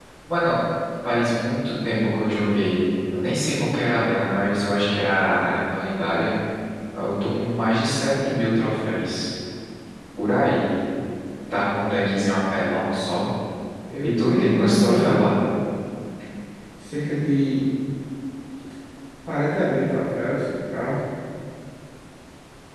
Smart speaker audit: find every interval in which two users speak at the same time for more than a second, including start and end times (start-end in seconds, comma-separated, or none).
14.0-15.2